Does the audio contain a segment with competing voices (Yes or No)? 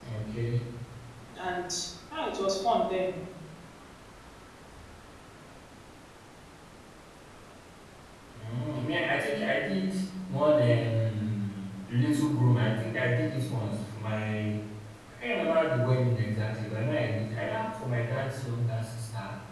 No